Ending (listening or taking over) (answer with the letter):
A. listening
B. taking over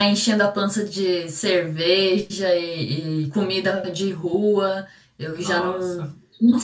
A